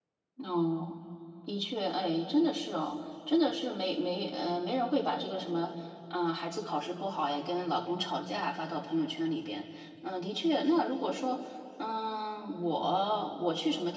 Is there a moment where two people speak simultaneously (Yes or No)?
No